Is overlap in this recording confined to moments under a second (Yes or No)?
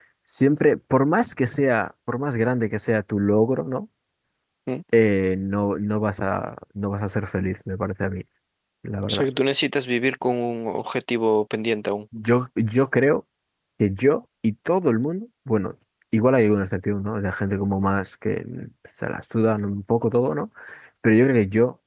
Yes